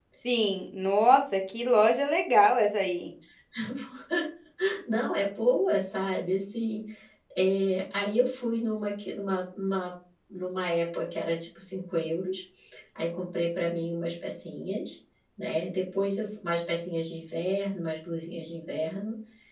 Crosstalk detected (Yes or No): No